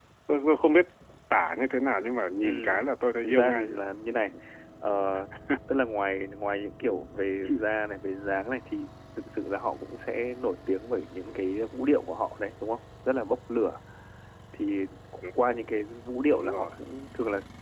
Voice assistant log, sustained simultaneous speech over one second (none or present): none